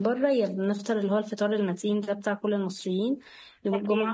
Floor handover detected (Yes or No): No